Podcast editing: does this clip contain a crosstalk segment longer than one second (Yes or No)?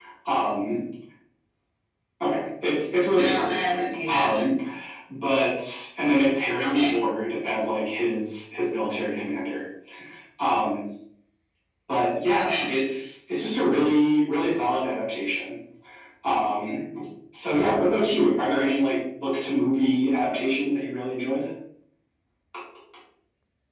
Yes